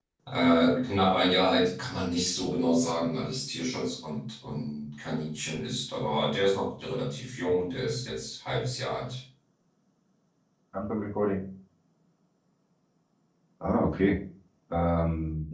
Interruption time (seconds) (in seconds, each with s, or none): none